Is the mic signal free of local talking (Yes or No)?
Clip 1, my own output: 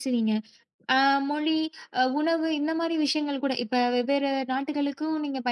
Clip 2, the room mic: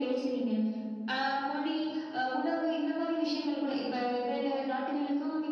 Yes